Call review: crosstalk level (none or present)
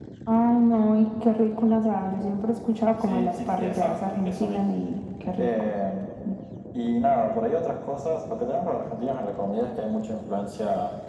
present